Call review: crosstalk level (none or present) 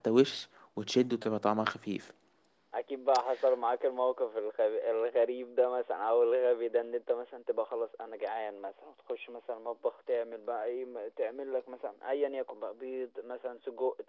none